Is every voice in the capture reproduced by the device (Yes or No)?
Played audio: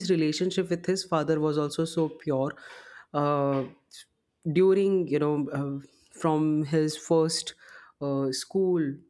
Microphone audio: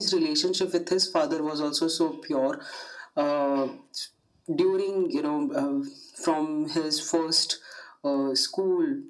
Yes